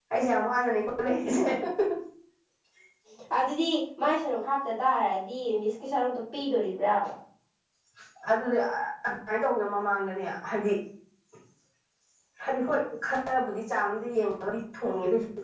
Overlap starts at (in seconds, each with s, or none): none